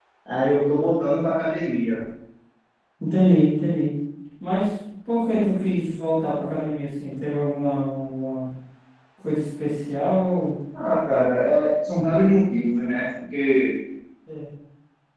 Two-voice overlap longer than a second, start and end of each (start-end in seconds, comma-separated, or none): none